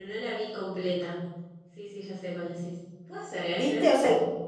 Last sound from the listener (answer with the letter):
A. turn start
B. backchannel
A